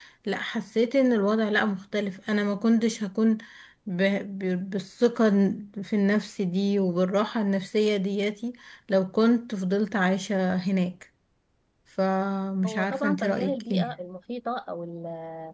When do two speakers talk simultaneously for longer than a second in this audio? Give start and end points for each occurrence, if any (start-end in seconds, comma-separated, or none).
12.7-13.9